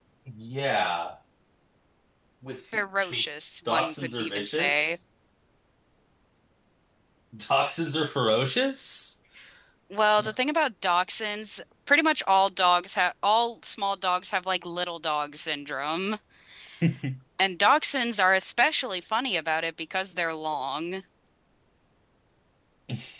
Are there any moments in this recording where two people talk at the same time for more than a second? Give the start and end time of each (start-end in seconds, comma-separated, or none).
3.7-5.0